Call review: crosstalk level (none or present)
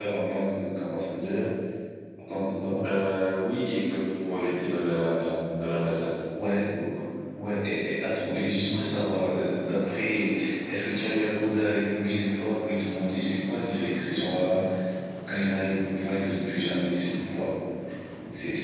none